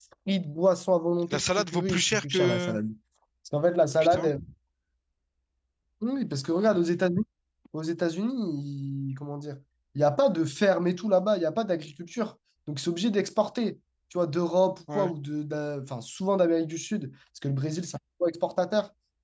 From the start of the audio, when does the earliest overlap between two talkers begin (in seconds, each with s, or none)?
1.3 s